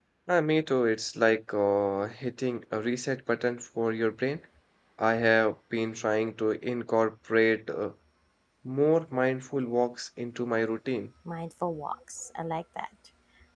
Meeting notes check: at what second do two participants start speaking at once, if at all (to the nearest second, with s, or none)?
none